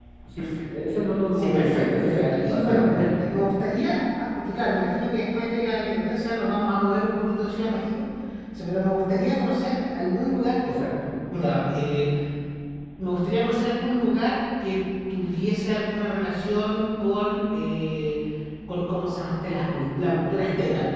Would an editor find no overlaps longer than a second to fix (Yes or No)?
No